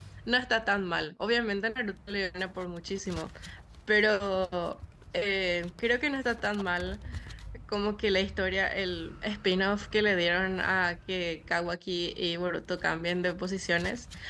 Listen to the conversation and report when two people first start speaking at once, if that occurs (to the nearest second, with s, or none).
none